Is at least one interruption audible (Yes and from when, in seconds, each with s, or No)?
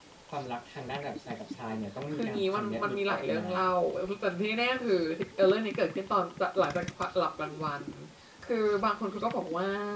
Yes, from 2.1 s